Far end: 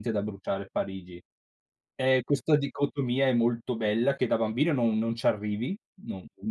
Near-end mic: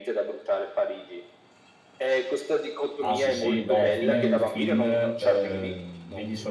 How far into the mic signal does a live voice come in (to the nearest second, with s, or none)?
3 s